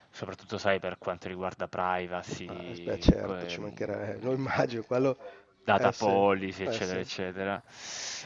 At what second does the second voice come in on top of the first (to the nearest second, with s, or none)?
2 s